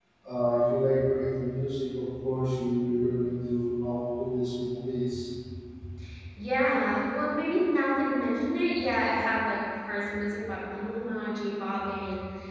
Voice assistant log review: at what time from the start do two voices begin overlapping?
none

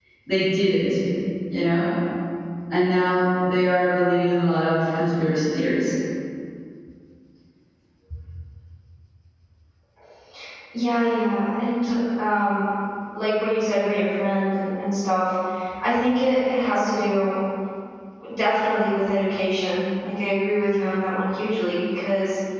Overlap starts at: none

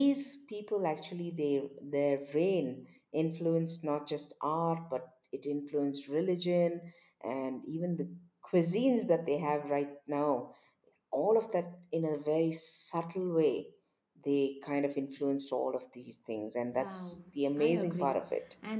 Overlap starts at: 17 s

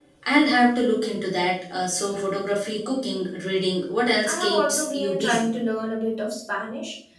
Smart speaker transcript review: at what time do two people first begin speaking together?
4 s

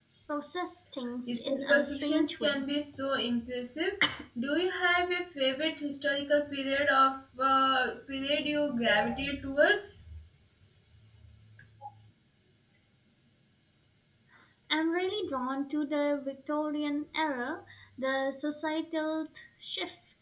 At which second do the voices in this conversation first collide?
1 s

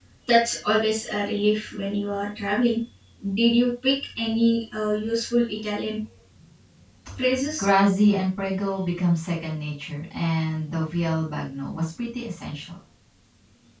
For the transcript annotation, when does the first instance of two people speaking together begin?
none

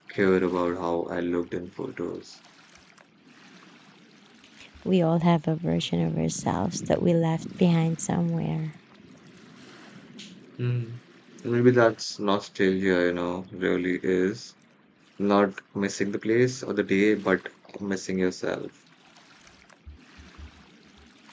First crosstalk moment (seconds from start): none

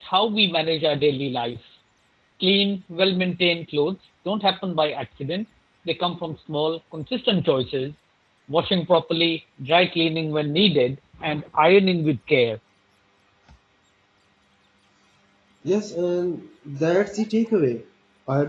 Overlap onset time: none

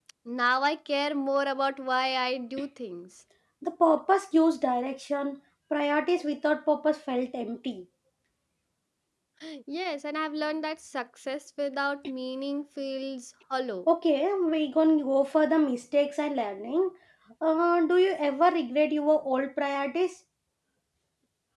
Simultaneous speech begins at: none

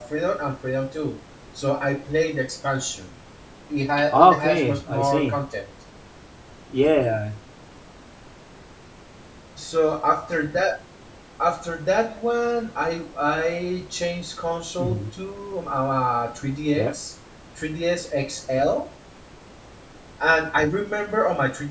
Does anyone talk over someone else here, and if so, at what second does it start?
4 s

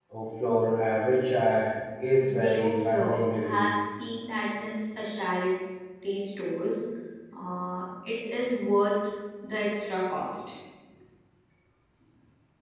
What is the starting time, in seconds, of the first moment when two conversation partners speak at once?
2 s

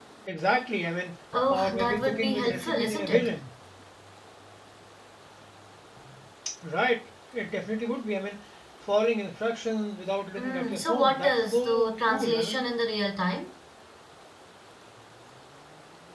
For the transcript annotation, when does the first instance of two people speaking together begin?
2 s

